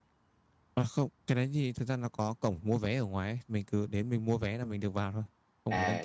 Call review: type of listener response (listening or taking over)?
taking over